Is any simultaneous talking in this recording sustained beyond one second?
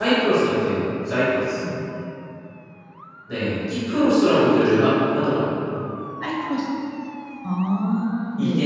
No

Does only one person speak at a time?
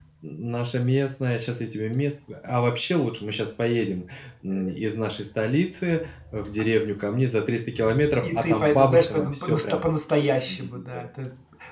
No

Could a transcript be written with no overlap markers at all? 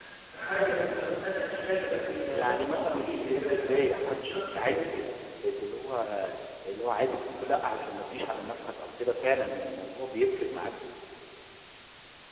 No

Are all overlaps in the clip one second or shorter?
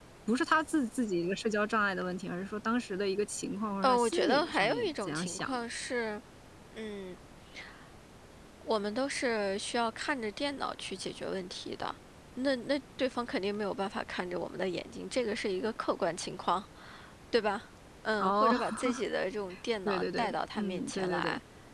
No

